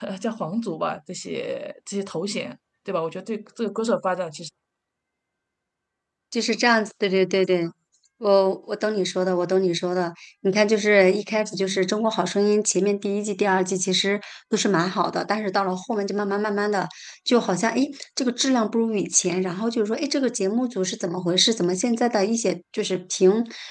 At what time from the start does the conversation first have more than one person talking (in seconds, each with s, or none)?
none